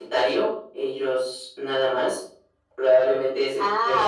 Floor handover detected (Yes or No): Yes